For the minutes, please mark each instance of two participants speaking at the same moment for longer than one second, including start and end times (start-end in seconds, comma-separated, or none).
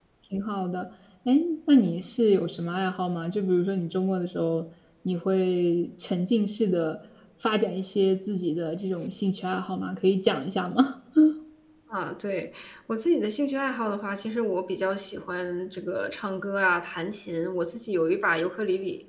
none